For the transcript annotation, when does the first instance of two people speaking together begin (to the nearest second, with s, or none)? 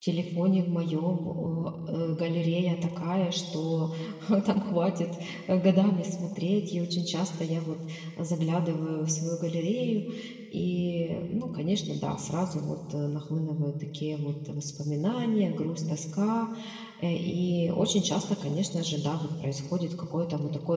none